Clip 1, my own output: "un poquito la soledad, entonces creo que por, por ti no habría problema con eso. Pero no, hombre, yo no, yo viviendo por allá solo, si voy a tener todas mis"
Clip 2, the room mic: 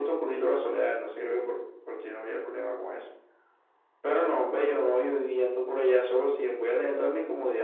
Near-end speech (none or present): none